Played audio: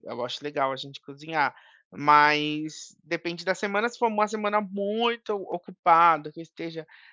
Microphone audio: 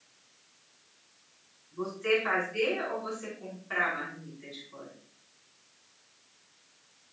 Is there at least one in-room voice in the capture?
Yes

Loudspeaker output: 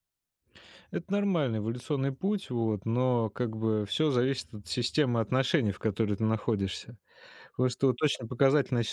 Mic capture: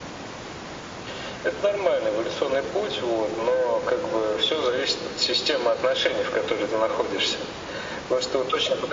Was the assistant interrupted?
No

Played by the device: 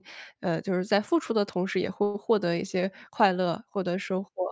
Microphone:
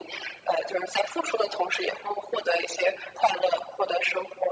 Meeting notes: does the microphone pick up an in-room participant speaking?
No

